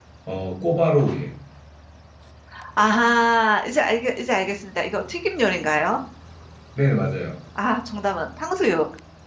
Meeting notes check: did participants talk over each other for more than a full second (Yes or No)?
No